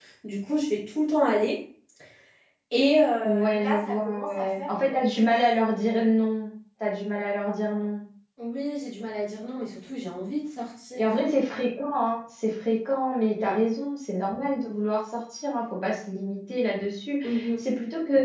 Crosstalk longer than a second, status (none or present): present